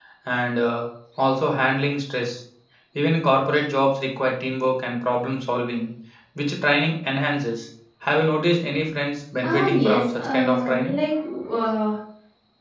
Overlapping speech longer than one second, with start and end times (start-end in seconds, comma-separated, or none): 9.4-11.0